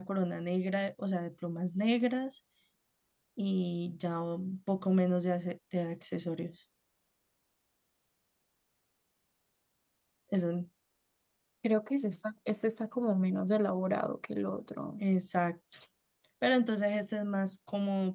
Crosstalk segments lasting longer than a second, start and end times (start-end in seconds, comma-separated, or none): none